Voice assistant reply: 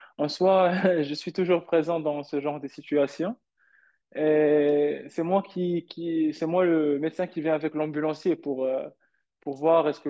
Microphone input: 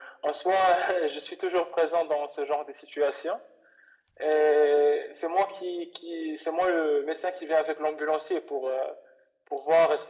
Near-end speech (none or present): none